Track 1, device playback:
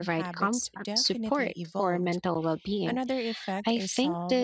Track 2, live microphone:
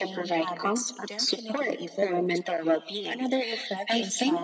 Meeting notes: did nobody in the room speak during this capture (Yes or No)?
Yes